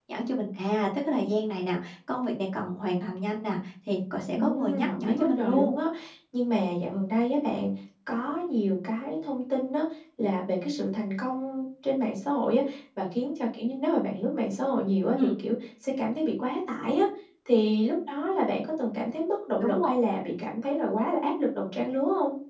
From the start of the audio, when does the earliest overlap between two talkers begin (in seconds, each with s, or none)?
4.3 s